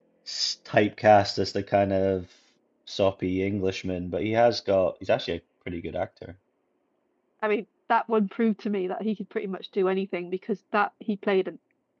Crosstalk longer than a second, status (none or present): none